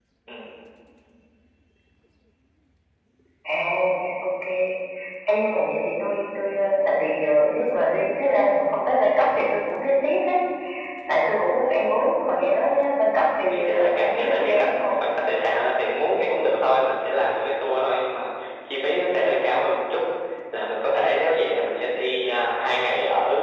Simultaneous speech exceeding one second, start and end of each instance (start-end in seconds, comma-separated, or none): 13.4-14.9